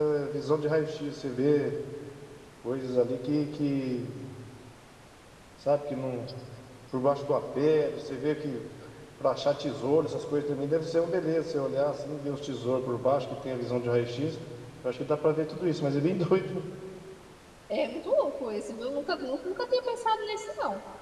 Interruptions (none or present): none